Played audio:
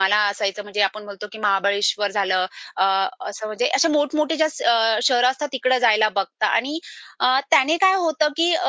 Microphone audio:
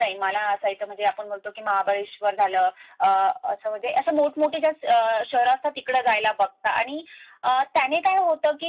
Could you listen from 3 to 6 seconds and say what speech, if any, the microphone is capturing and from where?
echo only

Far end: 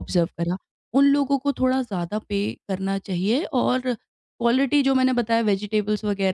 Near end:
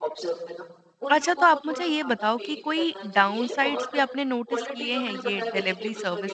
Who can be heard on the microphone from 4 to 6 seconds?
both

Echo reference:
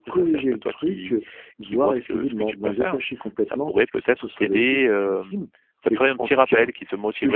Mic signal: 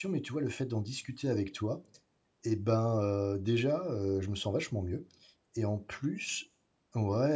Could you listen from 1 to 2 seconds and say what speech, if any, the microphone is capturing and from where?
user only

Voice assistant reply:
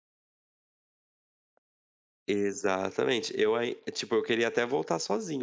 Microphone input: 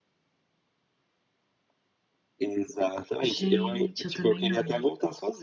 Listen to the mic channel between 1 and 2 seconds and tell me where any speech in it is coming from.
neither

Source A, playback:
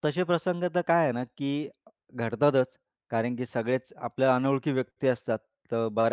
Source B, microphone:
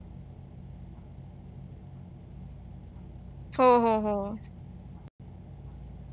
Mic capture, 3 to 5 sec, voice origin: user only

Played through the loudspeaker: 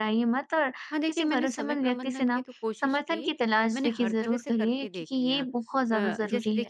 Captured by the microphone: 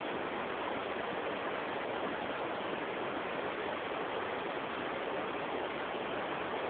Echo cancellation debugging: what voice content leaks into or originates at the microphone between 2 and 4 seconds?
neither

